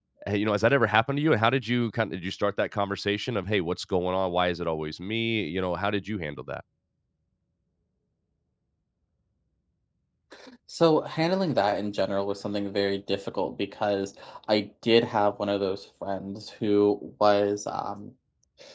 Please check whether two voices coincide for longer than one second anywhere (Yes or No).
No